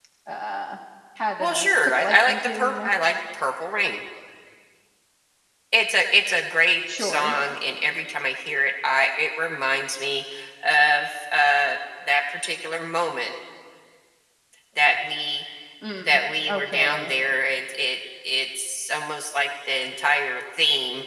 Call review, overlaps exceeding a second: present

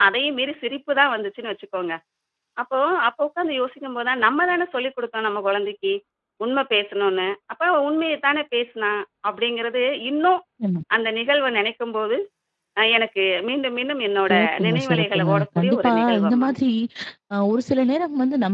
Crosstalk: present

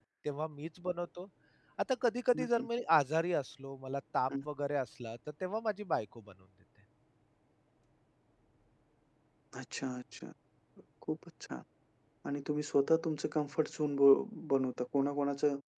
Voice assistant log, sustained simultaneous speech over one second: none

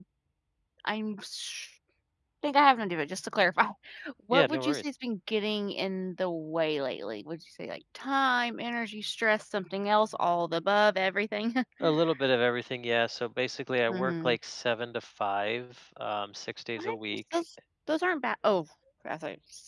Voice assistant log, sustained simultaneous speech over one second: none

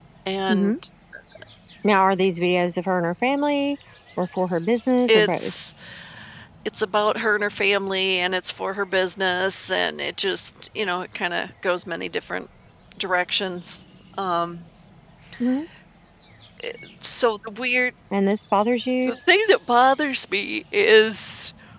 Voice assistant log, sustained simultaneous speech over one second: none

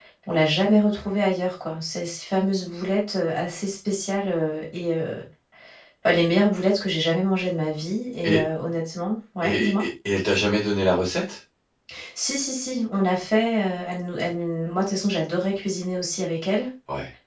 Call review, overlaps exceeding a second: none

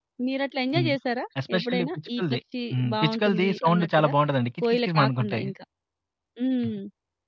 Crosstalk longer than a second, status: present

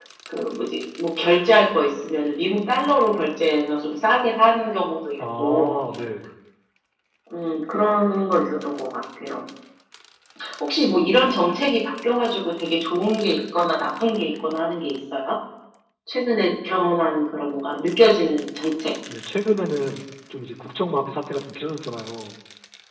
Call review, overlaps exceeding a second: none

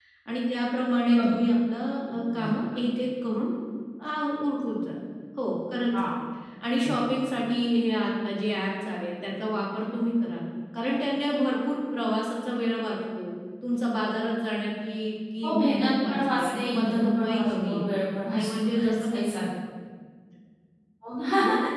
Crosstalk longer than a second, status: present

